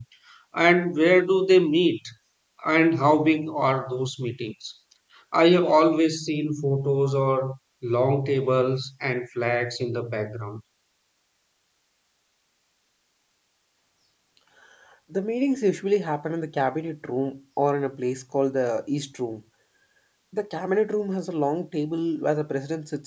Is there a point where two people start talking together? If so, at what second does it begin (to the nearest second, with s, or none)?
none